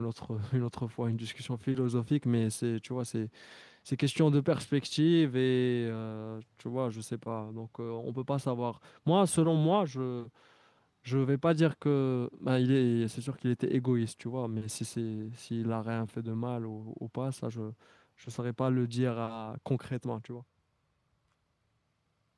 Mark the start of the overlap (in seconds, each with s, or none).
none